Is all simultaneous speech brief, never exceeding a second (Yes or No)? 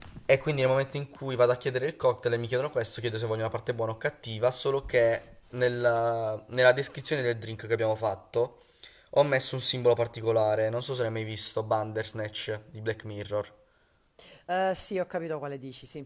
Yes